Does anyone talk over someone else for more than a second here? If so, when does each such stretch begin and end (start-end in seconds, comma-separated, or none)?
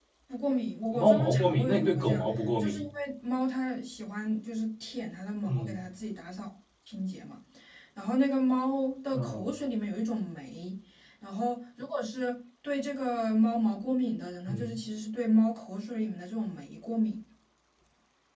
0.9-2.7